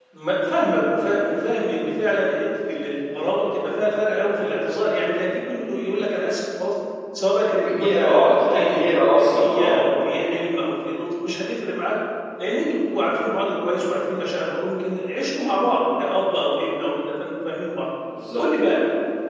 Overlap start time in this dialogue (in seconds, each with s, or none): 7.6 s